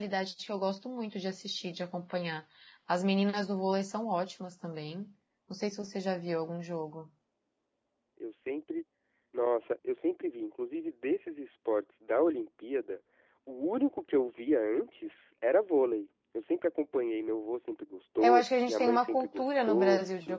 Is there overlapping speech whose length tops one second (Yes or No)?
Yes